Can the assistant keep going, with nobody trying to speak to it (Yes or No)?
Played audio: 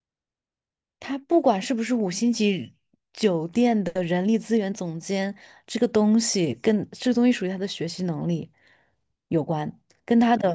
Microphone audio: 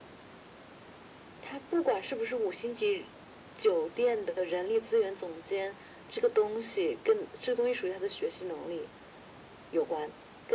Yes